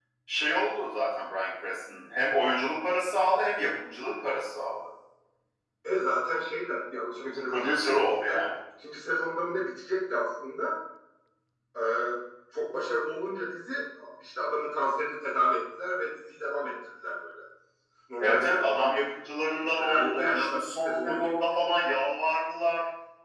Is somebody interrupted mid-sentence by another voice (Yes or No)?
Yes